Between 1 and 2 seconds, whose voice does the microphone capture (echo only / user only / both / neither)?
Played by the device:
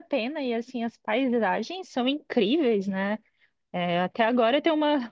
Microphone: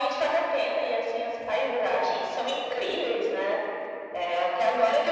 echo only